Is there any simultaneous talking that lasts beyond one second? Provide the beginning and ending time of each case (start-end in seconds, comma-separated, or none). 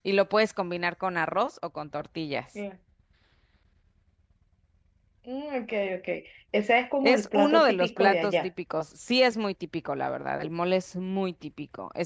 7.0-8.5